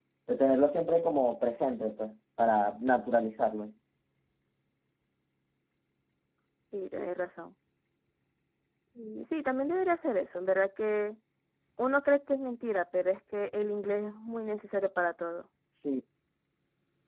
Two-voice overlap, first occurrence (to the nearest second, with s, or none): none